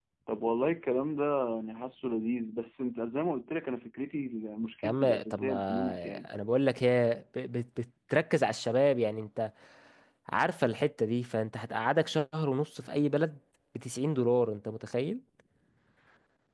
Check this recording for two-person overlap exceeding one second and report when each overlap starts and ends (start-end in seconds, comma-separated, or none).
4.8-6.3